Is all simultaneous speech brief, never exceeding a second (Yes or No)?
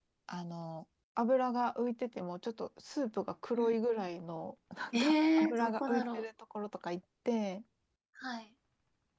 No